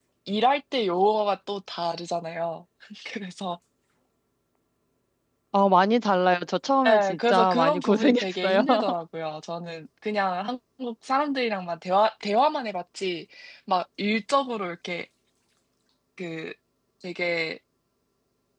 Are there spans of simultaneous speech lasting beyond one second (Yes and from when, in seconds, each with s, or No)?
Yes, from 6.8 s